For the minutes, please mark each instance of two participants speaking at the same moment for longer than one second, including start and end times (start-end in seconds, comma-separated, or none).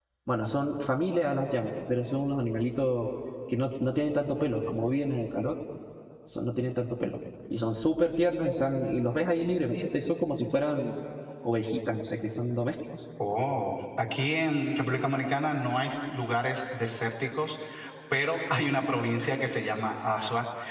none